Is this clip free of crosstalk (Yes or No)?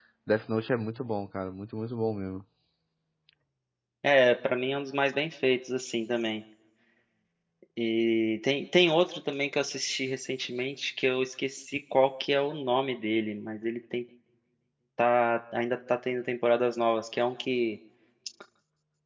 Yes